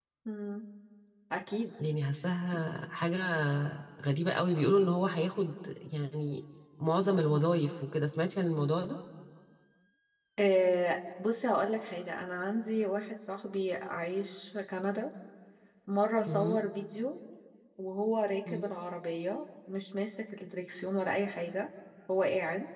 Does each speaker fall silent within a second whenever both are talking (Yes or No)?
Yes